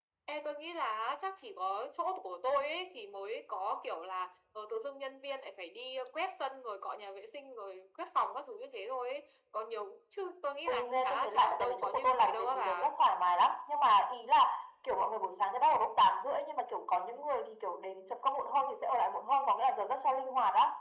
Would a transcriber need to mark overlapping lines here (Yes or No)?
Yes